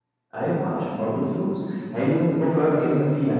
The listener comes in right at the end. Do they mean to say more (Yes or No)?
No